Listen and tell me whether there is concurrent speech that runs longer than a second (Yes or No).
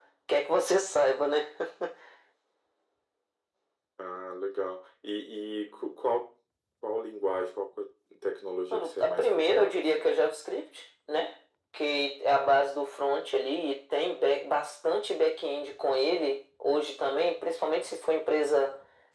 Yes